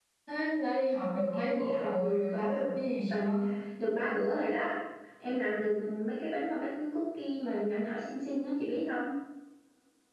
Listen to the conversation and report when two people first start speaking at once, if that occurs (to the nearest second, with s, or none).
1 s